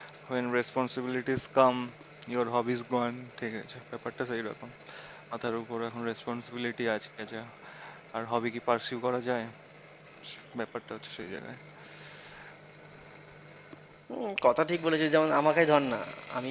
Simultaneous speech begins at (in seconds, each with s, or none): none